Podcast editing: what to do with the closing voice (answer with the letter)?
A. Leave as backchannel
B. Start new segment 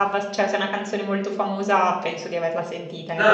B